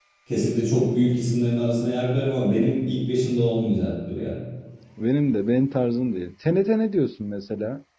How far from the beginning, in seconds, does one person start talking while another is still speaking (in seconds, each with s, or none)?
none